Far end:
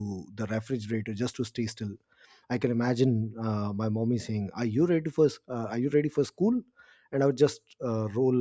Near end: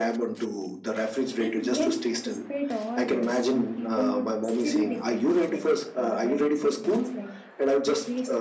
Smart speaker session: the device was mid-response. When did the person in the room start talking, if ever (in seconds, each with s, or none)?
1.4 s